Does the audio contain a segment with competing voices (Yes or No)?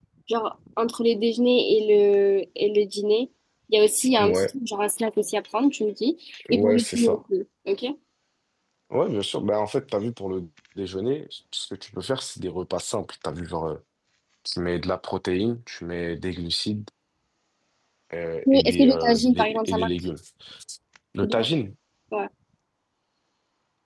Yes